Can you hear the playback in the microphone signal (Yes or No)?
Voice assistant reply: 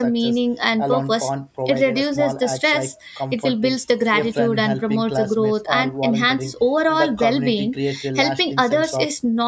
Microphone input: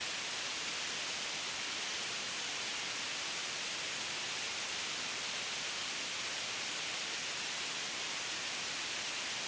No